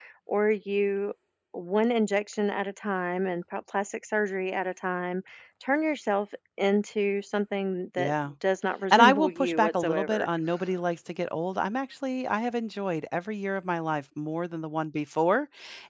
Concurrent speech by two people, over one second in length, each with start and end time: 8.9-10.3

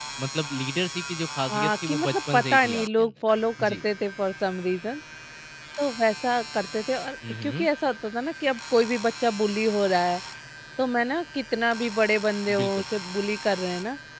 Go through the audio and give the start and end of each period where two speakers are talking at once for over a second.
1.5-3.1

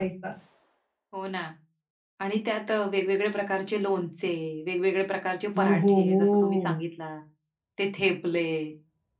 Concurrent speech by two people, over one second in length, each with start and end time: 5.5-6.8

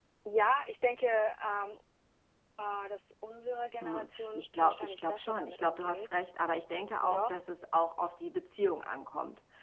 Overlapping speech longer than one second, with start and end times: 3.8-6.1

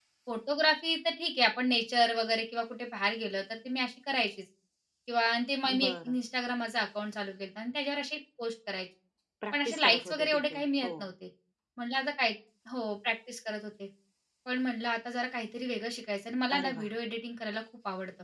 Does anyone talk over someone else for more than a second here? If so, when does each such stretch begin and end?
9.5-10.9

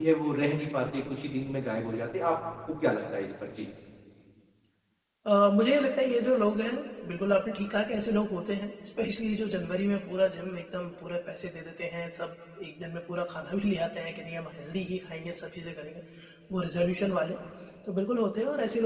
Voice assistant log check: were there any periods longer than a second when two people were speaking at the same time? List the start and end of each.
none

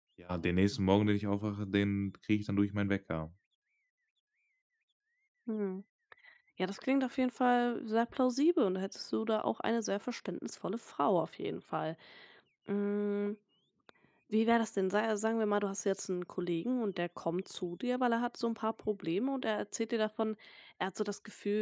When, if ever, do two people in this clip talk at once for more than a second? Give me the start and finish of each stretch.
none

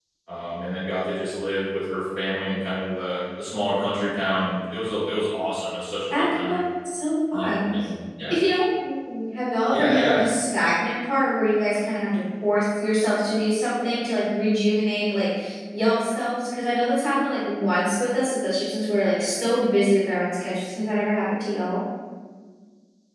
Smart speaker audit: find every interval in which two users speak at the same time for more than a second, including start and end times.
none

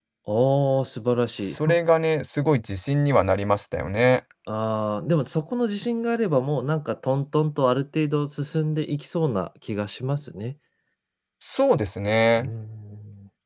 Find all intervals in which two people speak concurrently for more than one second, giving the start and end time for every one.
none

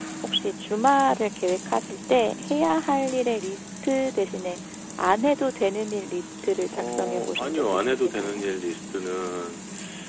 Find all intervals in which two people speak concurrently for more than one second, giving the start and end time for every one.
6.7-8.4

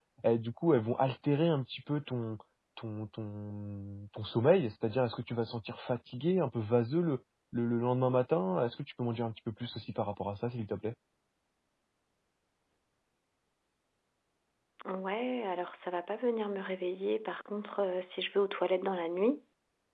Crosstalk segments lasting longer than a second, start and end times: none

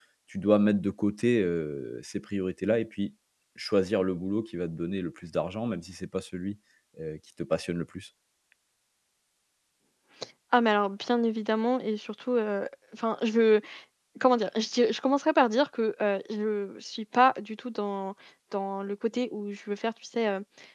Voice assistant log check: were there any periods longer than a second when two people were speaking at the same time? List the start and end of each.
none

